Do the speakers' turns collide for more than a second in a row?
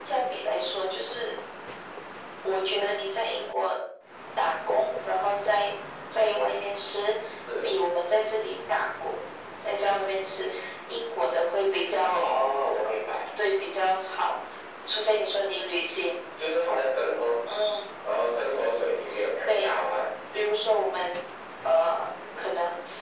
No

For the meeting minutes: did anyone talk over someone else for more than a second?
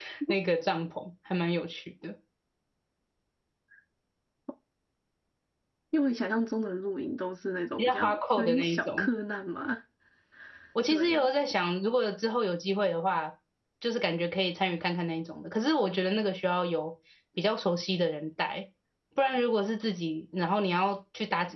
Yes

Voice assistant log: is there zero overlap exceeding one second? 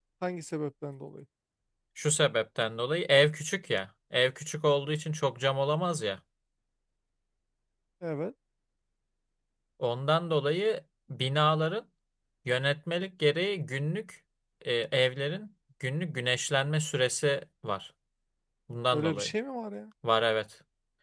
Yes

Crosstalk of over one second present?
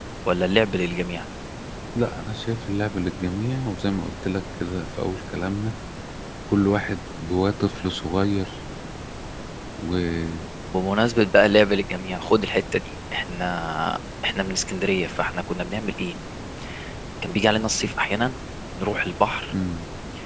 No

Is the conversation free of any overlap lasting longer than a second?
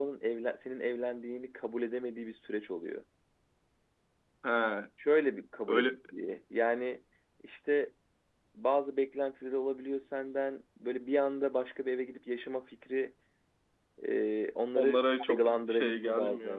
No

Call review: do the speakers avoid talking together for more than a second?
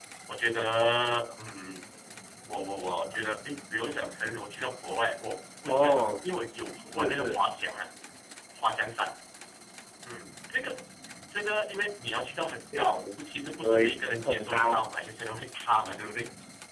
No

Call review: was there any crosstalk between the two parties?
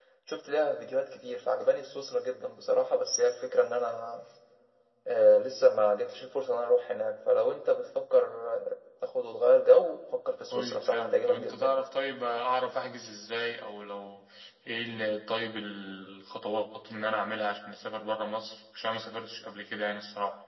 Yes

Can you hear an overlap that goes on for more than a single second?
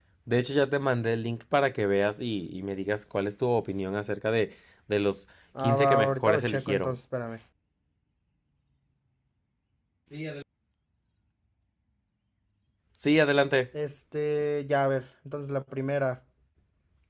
Yes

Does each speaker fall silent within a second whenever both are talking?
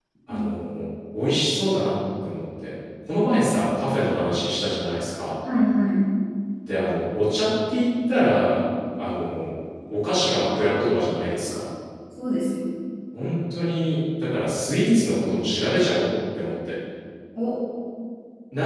Yes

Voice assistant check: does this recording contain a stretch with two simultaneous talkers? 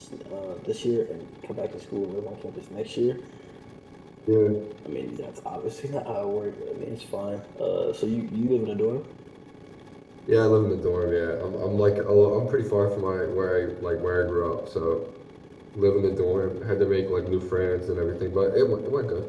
No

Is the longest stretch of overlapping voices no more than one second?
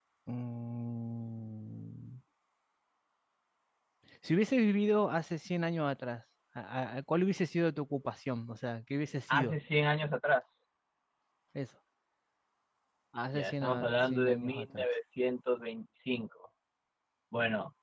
No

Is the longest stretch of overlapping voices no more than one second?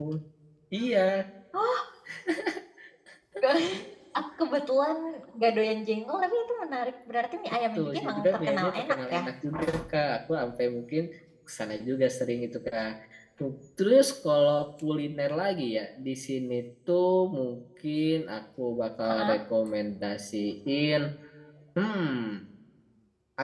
No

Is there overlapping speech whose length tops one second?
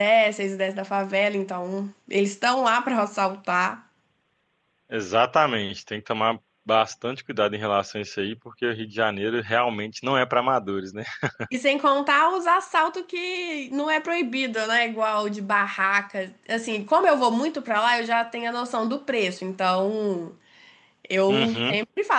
No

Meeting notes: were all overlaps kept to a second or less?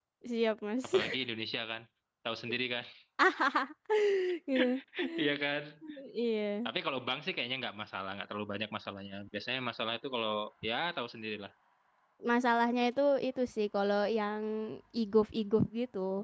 Yes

